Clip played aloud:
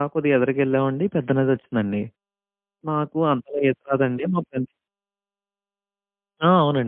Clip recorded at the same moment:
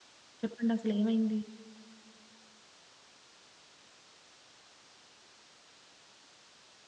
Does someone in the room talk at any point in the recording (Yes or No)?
Yes